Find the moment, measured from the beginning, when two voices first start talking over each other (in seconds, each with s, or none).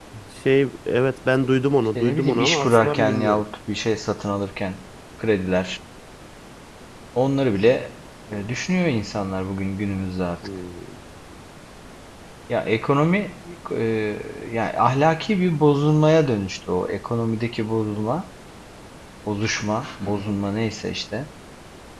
1.9 s